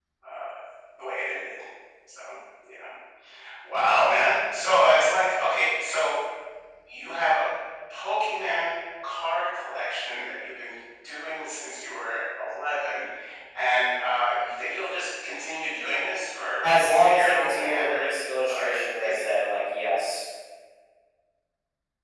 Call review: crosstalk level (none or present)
present